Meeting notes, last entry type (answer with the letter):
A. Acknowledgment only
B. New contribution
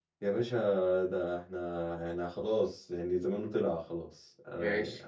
B